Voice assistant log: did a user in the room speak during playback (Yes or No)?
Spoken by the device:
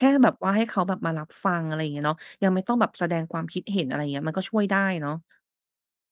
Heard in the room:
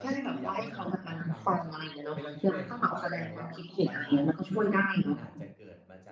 Yes